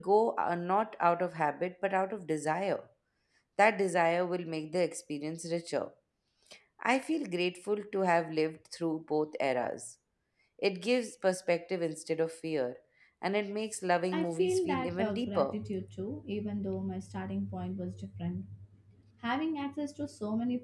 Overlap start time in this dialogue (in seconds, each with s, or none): 14.1 s